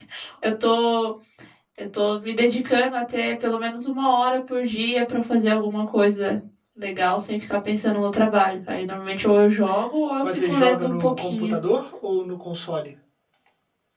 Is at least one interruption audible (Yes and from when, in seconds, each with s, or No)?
Yes, from 10.2 s